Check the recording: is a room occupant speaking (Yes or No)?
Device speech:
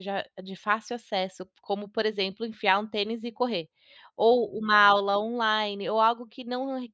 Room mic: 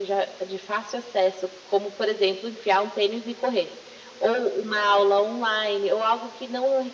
No